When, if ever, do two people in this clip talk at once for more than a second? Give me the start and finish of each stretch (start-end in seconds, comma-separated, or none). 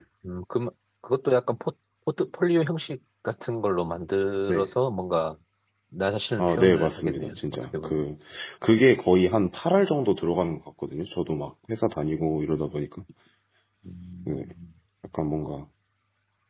6.4-8.0